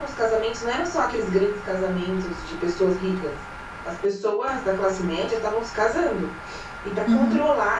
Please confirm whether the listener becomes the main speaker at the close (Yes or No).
No